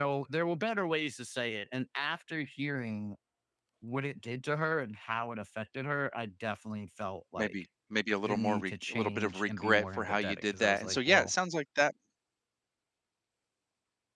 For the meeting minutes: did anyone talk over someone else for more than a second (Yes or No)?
Yes